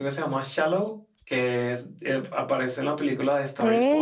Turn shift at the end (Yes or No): Yes